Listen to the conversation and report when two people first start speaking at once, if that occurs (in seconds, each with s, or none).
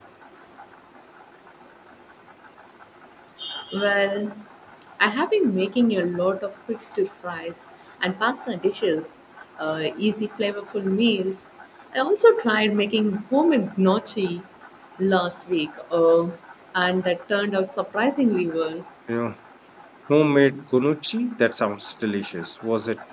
none